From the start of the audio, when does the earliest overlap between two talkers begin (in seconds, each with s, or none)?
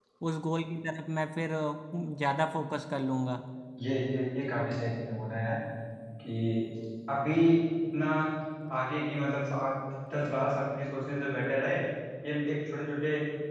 none